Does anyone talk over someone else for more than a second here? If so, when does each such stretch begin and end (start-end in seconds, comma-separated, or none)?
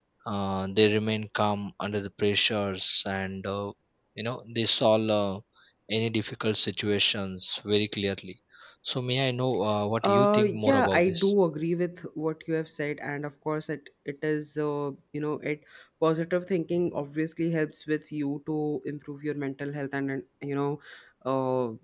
10.0-11.3